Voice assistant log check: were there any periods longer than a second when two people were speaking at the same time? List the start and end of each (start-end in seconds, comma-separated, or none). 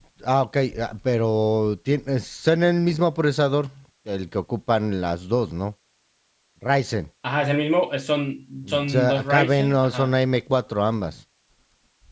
8.8-10.1